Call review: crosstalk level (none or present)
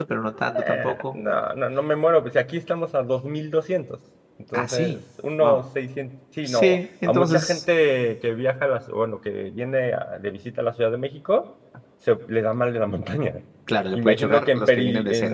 present